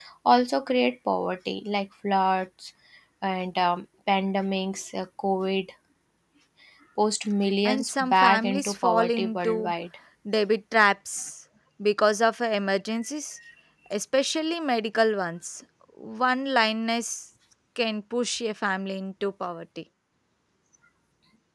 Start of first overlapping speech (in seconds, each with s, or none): 7.7 s